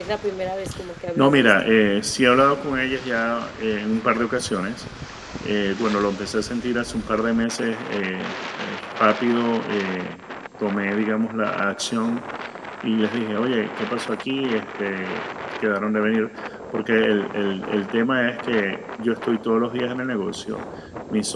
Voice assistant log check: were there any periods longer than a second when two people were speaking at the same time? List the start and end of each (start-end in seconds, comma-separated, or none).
none